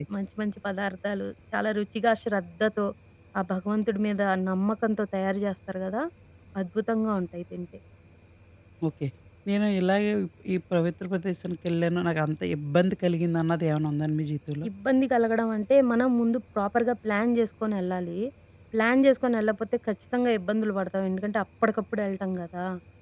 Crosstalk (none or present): none